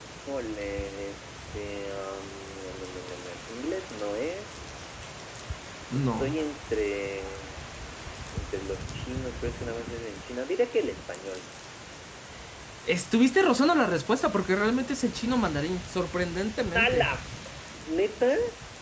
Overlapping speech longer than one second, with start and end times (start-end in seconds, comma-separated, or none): none